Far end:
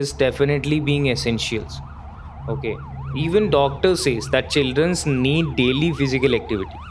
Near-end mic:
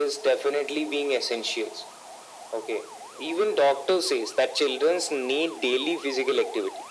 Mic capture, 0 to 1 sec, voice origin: echo only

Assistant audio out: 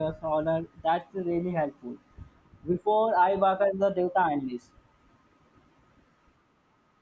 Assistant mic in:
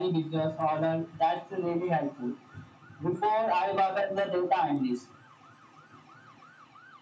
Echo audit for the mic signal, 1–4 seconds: echo only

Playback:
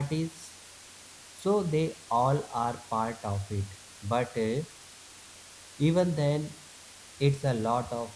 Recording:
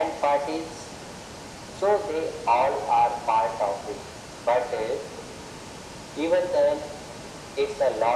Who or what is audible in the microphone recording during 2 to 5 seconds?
echo only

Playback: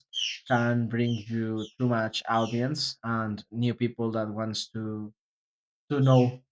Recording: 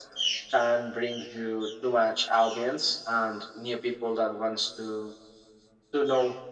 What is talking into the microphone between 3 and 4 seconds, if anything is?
echo only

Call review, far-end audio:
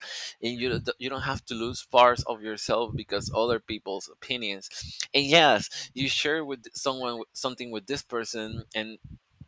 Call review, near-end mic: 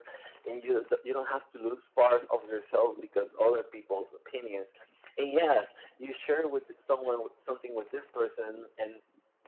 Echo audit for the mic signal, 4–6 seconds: echo only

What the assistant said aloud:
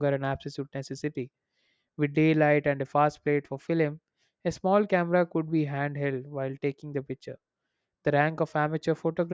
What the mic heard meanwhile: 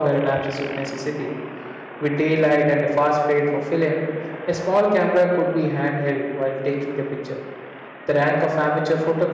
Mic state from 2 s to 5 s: echo only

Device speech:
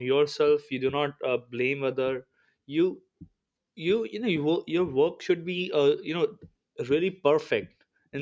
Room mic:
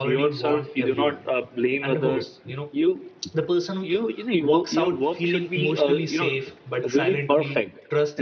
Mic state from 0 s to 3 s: both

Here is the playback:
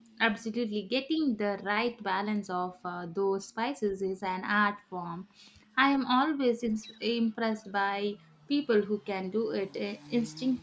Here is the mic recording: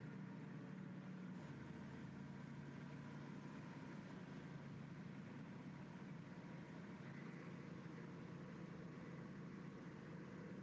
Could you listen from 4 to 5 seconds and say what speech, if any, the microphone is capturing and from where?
neither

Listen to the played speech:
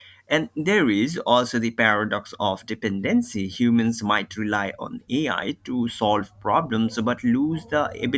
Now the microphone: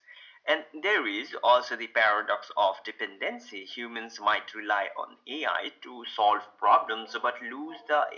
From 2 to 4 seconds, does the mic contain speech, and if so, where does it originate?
echo only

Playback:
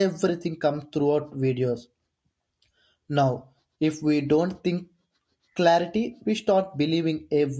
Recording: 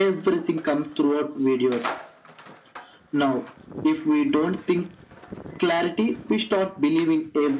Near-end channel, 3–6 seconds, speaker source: echo only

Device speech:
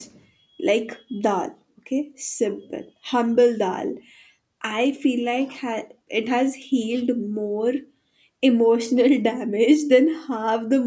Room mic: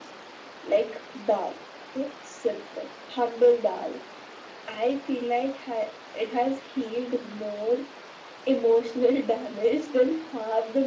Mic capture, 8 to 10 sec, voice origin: echo only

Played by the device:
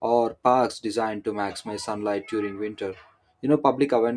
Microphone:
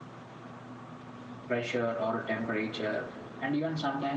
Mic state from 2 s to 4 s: user only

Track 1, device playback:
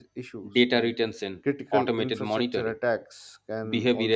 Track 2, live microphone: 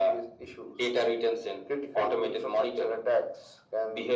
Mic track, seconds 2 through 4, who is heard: echo only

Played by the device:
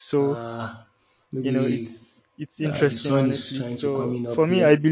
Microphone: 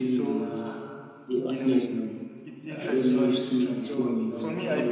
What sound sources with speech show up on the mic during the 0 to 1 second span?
both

